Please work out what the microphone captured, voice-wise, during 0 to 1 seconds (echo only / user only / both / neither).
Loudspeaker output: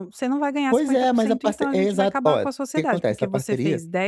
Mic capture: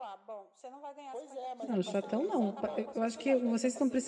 echo only